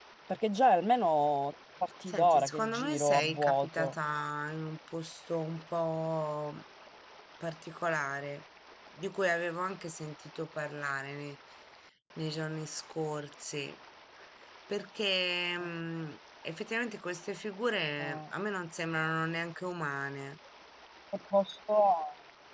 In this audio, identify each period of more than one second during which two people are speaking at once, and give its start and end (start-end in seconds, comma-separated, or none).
2.1-3.9